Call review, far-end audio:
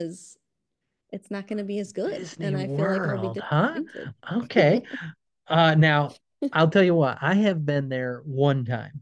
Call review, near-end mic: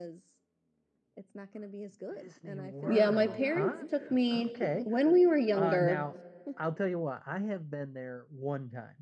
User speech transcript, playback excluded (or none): Yeah, my parents took me when we were younger